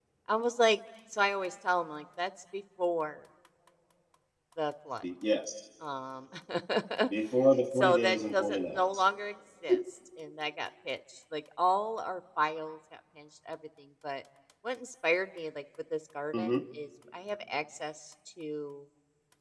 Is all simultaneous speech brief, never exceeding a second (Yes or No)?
No